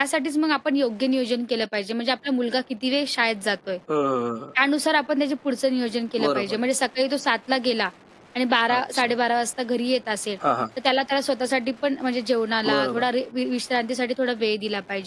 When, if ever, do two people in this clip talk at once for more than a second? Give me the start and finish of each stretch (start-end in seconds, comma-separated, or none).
none